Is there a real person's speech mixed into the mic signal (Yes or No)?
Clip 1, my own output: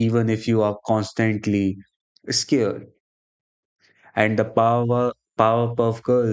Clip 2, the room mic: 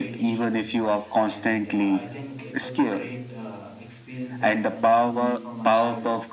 Yes